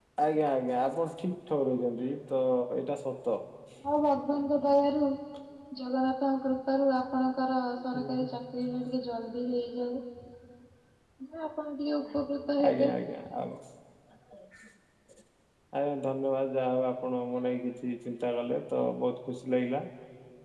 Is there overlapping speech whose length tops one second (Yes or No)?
No